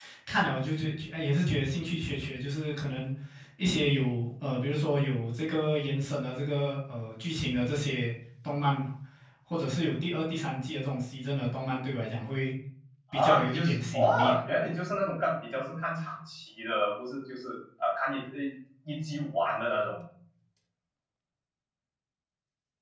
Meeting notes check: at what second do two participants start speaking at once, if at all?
13.1 s

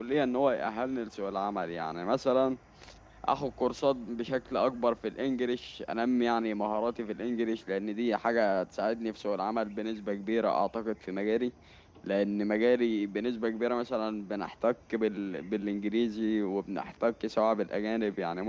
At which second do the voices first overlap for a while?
none

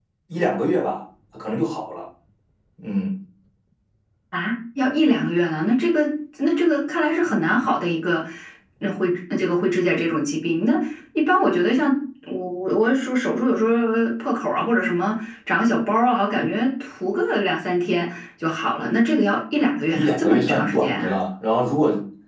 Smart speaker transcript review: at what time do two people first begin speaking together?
19.9 s

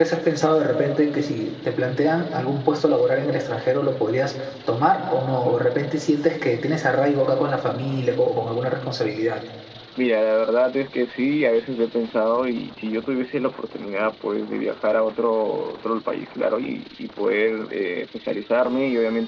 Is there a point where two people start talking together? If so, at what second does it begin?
none

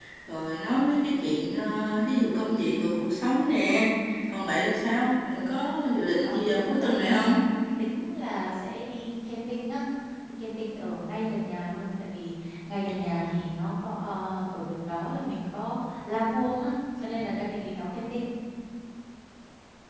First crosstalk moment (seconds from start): 6.2 s

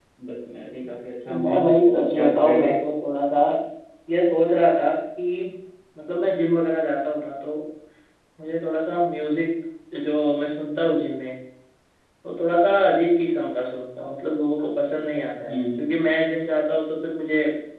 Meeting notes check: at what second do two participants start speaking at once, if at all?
1.3 s

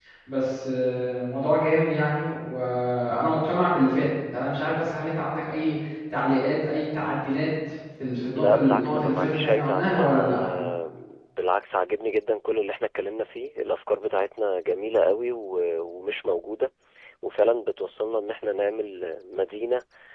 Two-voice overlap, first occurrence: 8.4 s

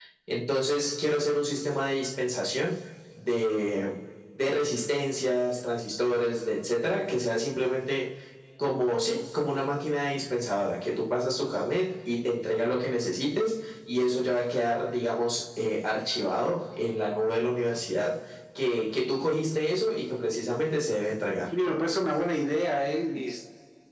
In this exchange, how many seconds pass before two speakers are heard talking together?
none

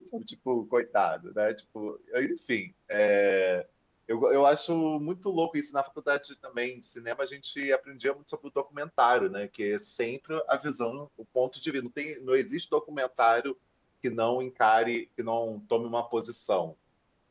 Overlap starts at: none

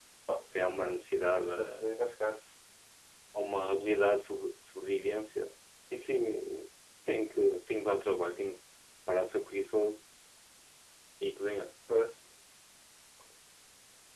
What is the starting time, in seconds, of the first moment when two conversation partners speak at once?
0.6 s

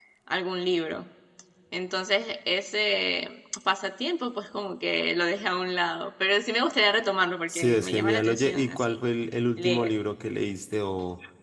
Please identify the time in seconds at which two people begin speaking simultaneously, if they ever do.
7.5 s

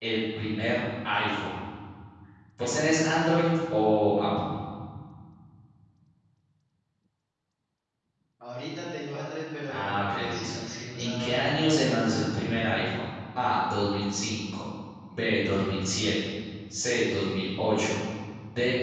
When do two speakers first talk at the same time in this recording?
9.7 s

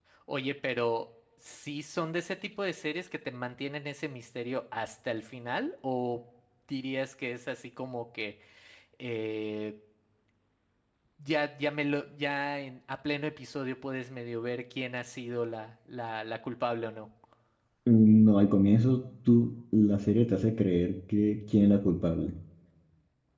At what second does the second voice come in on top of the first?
none

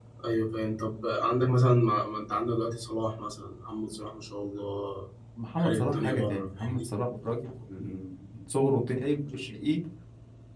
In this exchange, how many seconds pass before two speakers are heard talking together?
5.6 s

